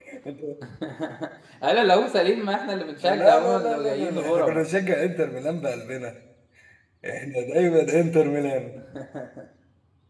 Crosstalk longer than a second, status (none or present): present